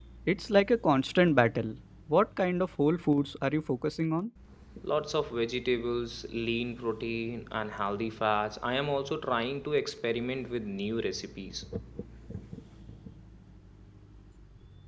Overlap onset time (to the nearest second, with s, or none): none